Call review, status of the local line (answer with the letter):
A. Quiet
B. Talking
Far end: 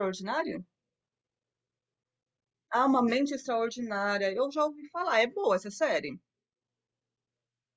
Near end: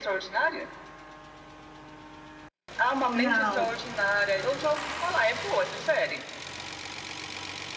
B